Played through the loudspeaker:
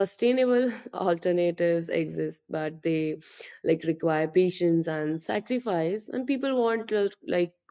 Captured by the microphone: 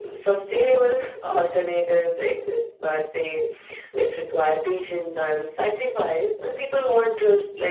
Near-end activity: none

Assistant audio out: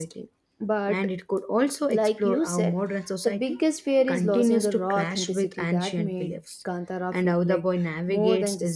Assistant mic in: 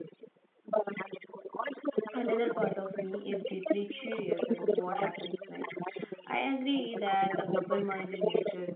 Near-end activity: present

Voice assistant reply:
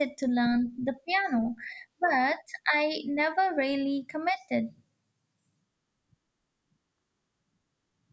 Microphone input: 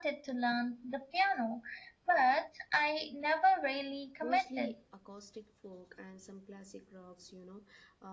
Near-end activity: present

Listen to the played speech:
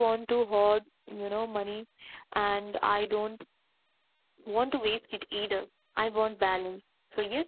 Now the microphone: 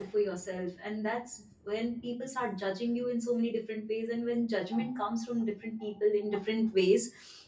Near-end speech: present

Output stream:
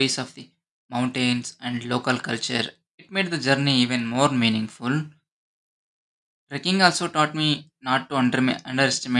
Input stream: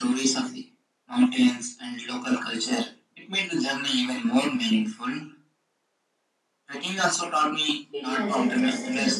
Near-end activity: present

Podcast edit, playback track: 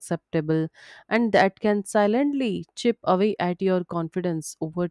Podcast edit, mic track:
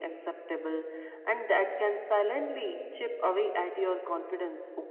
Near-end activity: none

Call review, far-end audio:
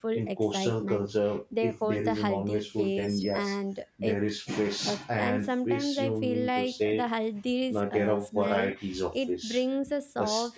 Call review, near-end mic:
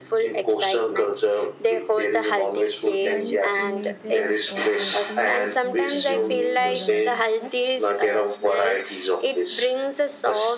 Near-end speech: present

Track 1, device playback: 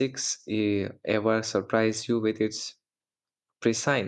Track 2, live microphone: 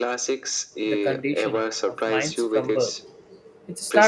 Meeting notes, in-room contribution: present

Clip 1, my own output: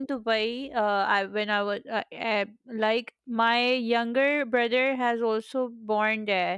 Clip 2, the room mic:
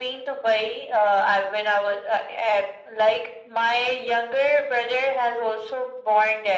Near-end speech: none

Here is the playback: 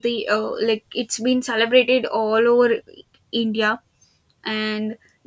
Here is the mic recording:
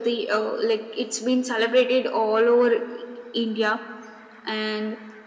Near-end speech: none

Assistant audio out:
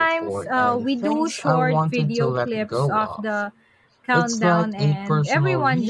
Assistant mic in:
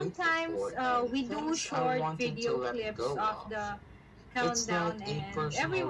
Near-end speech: none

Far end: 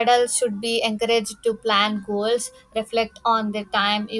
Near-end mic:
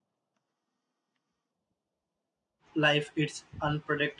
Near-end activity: present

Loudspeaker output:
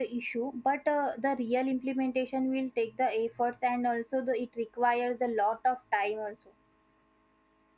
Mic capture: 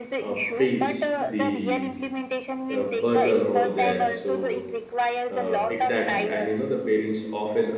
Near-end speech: present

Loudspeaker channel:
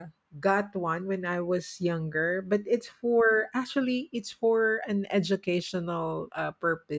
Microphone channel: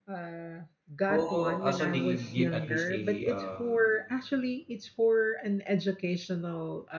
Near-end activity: present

